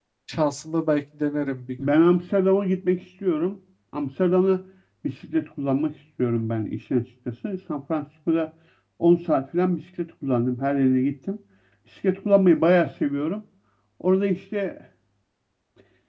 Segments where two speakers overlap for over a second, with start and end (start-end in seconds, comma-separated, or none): none